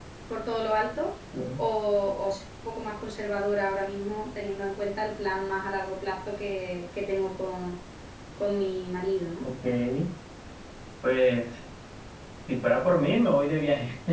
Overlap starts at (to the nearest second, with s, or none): none